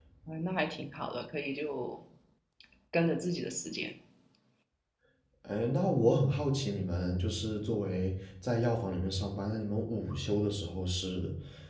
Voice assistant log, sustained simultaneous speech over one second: none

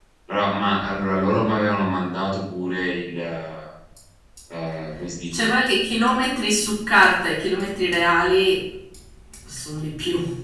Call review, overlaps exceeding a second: none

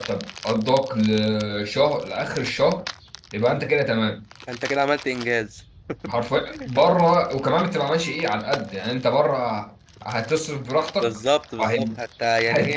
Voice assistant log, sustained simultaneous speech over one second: none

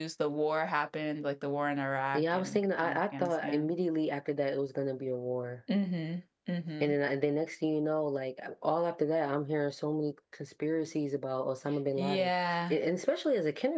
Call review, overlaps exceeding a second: present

